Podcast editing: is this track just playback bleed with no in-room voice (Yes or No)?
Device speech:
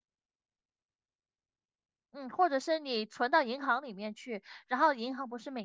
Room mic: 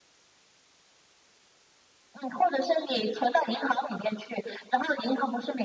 Yes